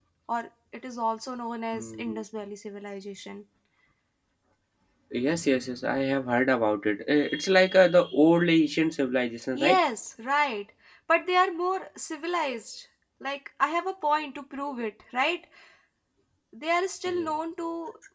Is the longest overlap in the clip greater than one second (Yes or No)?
No